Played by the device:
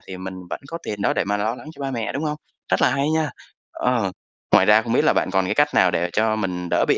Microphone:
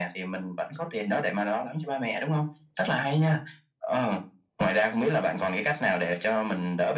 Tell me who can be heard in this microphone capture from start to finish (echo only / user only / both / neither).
echo only